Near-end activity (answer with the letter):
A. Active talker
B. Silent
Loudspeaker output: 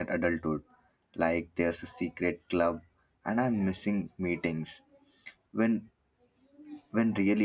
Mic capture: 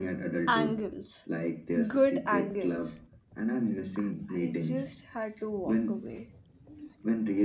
A